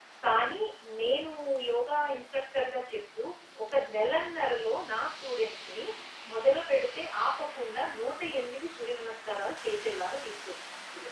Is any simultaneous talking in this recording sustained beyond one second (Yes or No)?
No